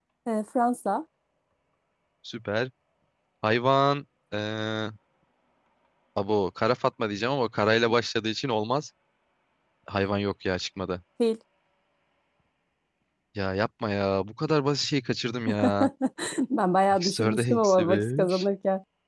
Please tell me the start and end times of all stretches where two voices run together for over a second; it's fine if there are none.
16.9-18.4

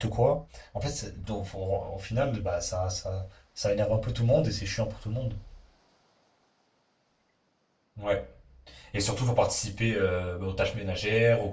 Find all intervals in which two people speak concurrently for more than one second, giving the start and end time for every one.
none

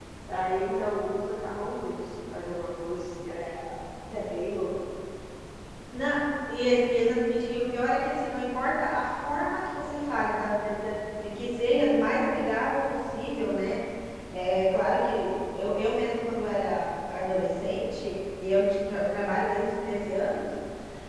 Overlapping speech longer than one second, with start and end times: none

